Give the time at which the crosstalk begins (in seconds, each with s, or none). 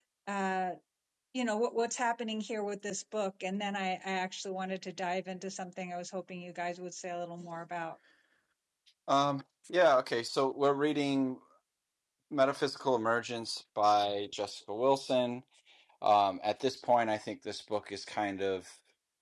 none